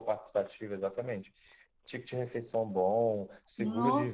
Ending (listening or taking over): listening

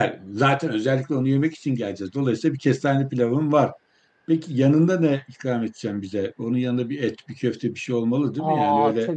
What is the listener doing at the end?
taking over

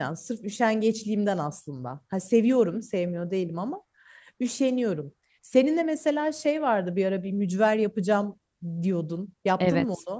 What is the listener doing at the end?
taking over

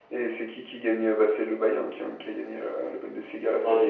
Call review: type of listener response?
taking over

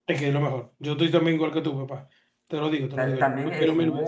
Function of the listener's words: taking over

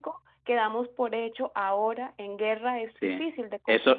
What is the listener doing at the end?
taking over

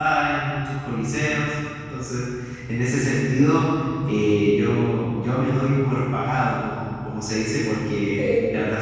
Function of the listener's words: listening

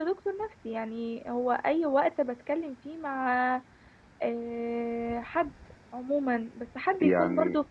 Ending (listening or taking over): listening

